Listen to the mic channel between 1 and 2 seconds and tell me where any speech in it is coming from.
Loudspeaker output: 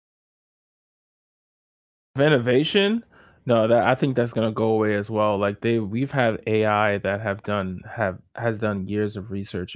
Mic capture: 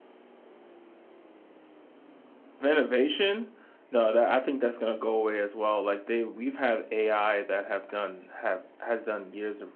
neither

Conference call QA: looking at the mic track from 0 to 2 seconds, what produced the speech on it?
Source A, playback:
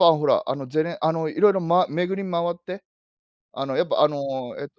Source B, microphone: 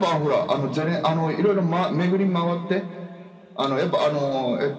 echo only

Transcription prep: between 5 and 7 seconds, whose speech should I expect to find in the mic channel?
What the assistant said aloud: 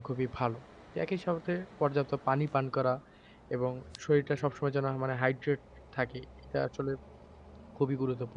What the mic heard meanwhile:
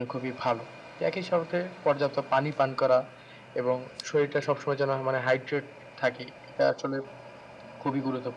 echo only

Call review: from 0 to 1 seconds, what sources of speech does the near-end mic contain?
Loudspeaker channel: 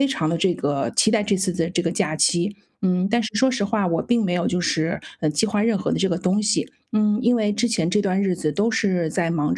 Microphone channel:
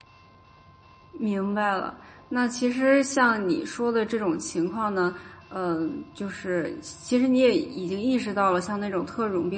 neither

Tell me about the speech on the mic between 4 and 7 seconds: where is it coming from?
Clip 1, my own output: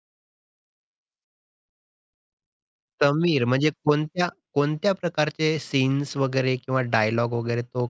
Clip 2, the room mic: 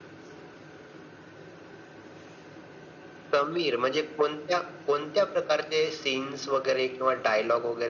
echo only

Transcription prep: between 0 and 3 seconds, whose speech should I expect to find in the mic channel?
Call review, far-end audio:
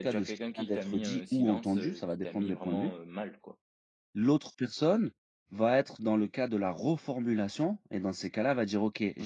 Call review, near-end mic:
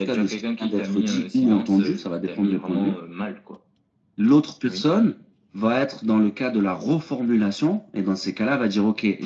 echo only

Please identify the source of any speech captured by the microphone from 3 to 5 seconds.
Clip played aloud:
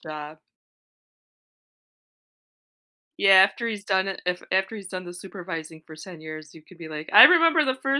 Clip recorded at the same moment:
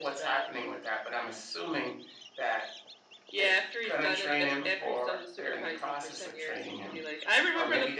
both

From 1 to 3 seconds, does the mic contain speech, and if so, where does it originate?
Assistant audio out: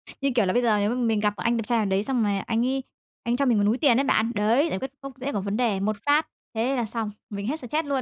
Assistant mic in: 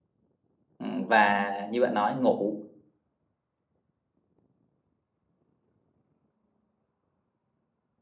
user only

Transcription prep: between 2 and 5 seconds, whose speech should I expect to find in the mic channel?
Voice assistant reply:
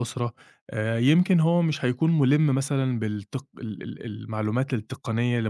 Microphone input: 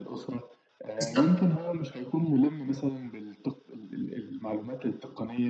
echo only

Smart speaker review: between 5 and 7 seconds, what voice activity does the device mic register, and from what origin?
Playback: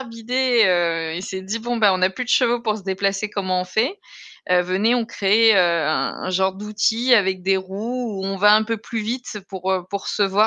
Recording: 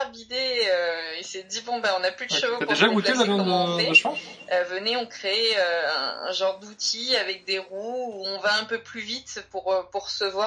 echo only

